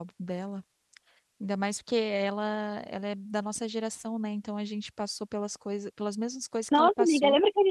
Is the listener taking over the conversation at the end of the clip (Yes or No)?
Yes